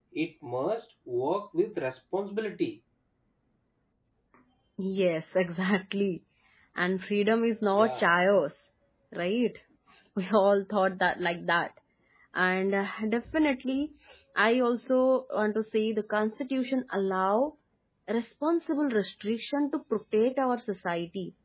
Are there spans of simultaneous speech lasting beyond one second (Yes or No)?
No